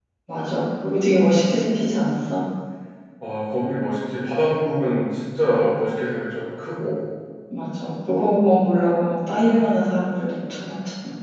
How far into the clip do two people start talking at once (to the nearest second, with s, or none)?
none